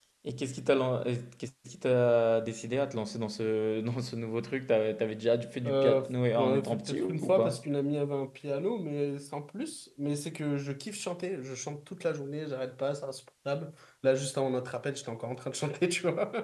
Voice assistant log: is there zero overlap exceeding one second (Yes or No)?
No